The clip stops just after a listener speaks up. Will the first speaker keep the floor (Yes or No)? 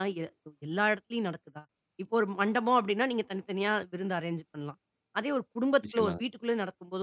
Yes